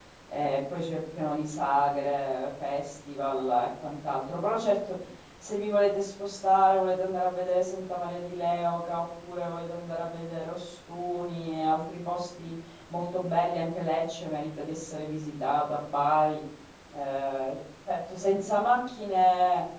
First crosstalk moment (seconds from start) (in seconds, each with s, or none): none